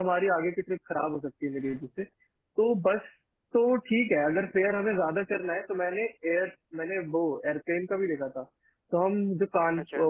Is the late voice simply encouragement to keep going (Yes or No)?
Yes